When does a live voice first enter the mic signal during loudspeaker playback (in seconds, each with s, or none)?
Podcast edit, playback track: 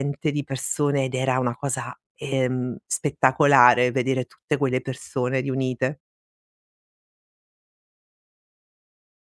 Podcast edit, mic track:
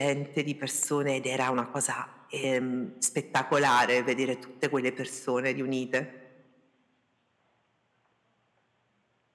none